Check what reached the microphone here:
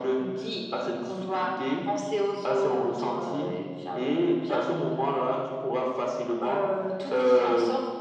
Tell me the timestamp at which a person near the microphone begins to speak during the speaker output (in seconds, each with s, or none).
none